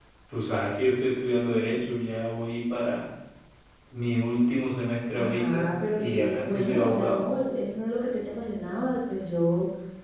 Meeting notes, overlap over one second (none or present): present